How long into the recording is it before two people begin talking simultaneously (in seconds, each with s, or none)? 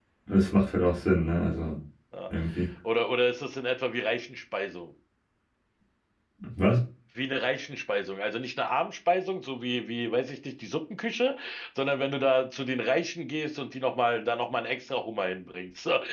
none